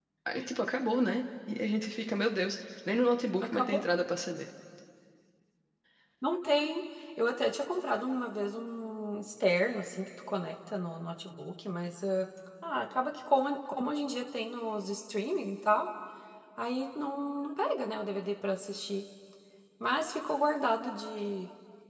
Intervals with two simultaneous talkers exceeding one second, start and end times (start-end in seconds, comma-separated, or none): none